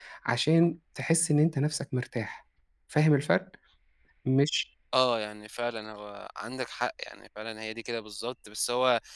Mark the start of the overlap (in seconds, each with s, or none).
none